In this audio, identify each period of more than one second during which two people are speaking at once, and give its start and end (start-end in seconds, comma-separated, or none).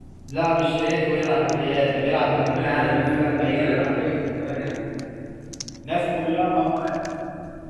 2.1-3.9